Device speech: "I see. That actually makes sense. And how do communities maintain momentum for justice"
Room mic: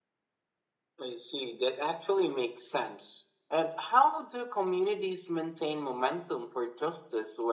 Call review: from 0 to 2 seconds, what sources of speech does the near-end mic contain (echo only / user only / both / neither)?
echo only